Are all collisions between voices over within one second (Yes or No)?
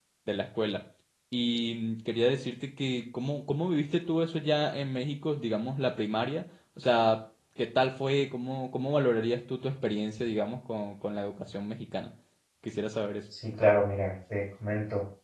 Yes